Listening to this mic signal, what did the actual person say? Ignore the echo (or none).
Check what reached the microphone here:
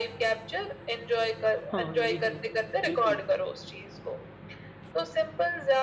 हाँ, ये है। बिल्कुल।